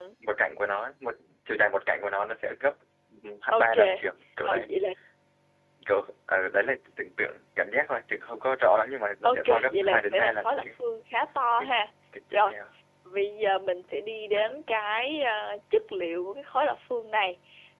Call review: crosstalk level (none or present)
present